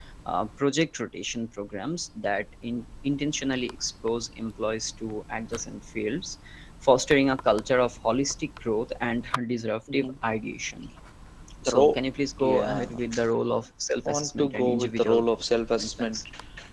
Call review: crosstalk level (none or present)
present